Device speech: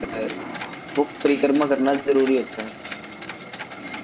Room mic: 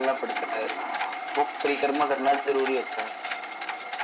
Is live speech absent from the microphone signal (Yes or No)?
Yes